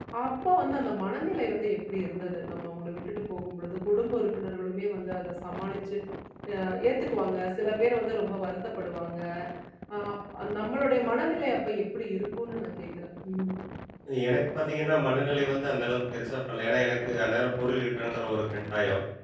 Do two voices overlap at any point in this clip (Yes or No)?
No